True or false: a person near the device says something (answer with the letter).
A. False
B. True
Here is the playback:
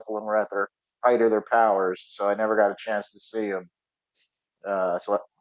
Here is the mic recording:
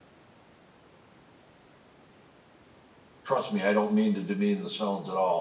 B